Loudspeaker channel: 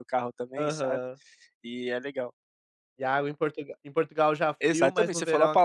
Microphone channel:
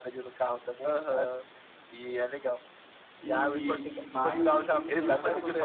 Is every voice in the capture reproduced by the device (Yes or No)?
No